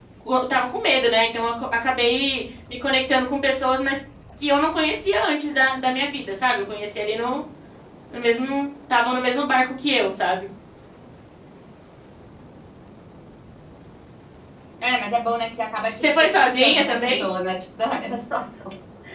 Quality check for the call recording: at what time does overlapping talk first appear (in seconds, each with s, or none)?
16.0 s